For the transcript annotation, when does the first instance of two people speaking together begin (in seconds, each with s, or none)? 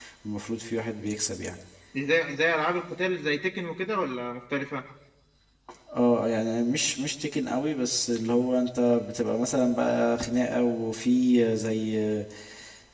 none